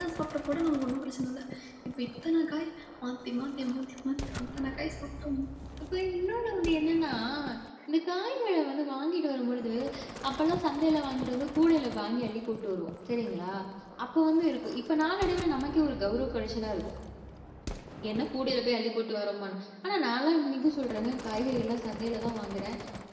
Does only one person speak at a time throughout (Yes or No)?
Yes